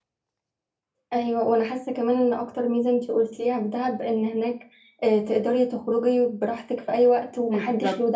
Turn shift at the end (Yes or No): Yes